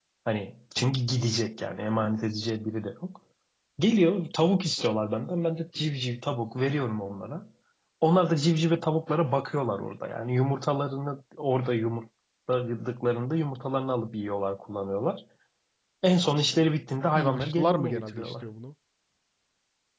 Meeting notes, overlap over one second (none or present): present